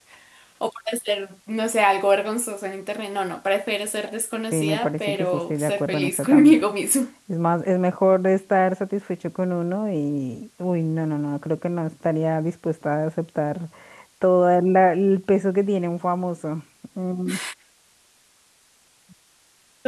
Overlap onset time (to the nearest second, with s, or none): 5 s